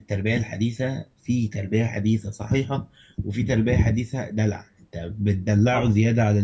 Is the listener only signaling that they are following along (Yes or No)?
Yes